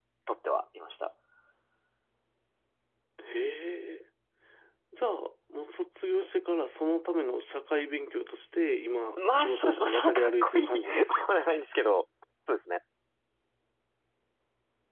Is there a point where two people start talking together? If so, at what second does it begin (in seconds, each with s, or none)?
9.2 s